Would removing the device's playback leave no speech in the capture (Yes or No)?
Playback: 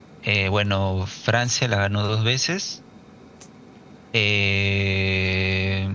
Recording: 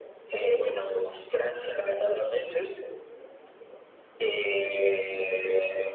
Yes